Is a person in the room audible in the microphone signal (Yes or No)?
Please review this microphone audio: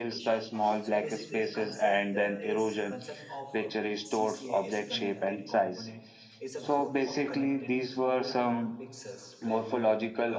Yes